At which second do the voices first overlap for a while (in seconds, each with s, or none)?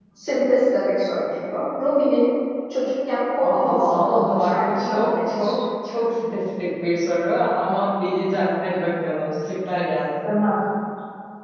3.4 s